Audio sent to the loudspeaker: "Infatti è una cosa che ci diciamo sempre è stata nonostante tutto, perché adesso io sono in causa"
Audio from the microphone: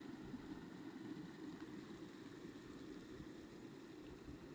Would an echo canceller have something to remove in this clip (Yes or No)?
No